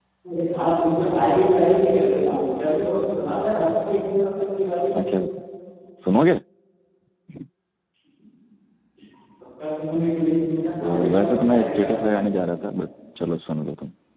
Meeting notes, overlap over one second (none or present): present